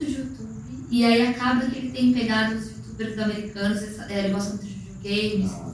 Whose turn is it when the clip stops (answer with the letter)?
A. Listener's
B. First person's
B